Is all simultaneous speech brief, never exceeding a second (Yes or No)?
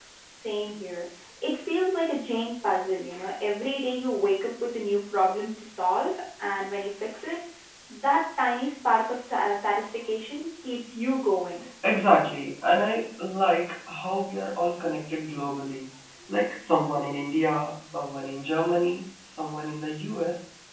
Yes